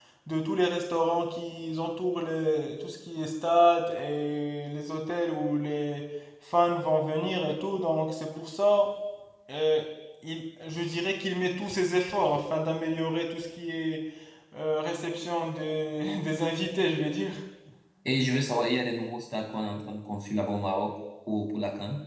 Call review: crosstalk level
none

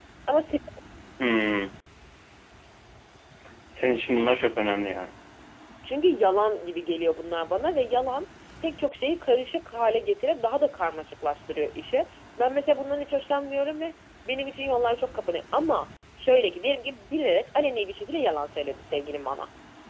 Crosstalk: none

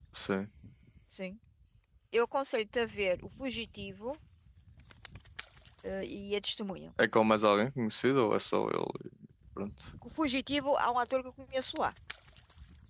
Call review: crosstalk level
none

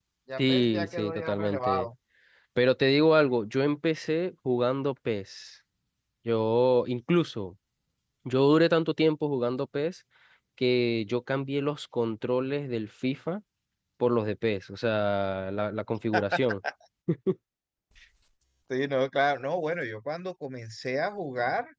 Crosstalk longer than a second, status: present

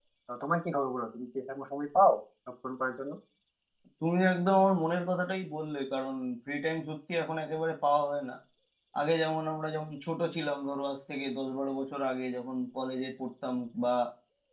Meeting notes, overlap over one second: none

